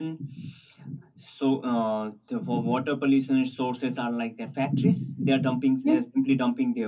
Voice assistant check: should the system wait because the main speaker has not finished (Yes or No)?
Yes